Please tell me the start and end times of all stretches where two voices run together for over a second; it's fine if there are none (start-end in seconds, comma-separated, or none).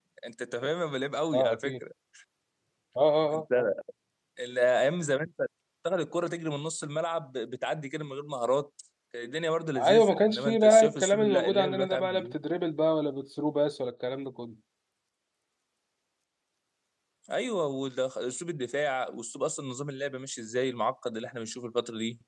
9.8-12.3